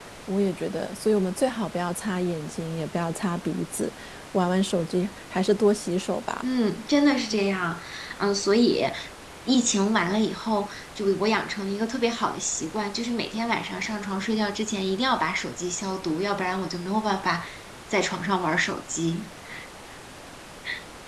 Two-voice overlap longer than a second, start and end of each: none

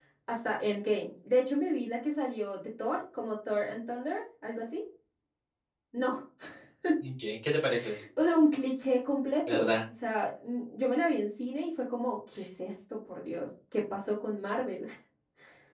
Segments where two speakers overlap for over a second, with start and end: none

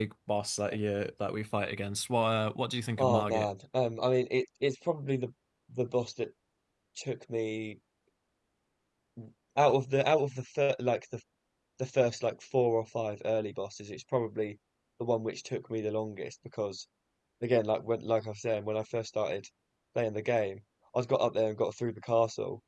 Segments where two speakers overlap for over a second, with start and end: none

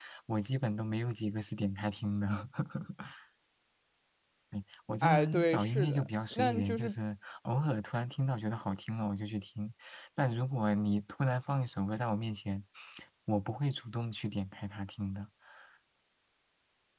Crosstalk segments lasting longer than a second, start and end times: 5.0-6.9

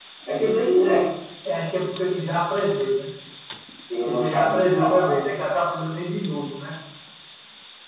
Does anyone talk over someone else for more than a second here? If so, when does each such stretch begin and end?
4.0-5.4

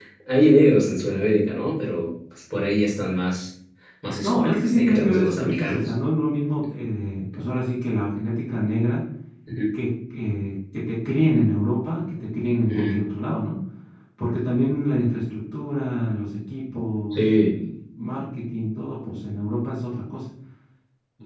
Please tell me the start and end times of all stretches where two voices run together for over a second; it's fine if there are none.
4.2-5.9

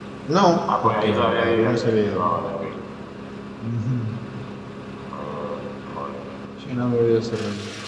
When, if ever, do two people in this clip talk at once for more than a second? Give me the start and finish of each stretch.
0.8-2.2

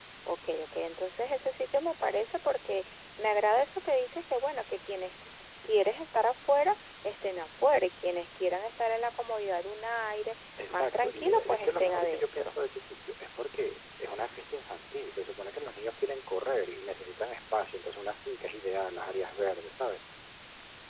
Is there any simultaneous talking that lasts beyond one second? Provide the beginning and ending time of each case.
10.7-12.5

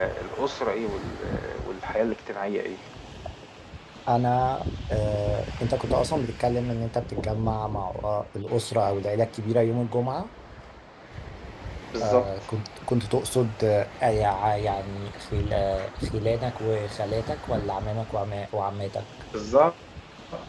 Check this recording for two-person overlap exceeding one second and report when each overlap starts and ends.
none

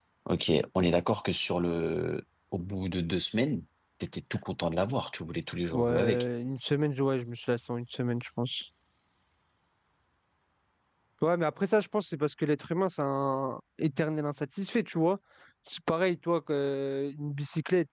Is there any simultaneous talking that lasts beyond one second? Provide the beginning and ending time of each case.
none

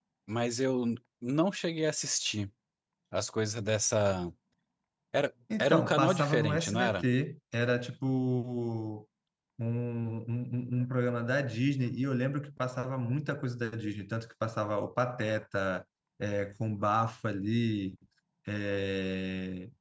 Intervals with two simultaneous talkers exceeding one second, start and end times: 5.6-7.0

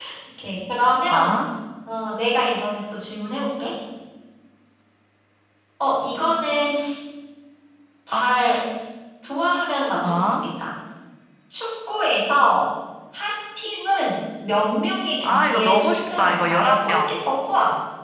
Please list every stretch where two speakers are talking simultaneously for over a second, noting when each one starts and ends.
15.2-17.1

